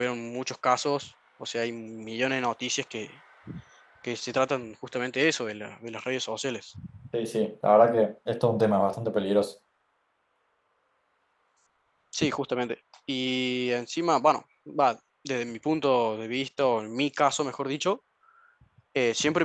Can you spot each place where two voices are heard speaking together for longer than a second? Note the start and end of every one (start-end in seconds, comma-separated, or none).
none